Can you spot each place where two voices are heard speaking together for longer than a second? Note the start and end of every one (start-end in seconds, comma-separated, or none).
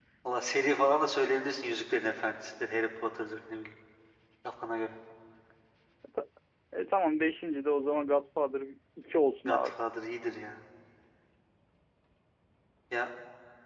none